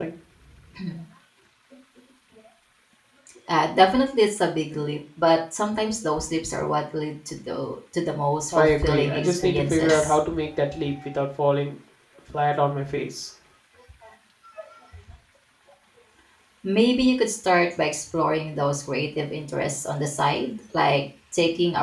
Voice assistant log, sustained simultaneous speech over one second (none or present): present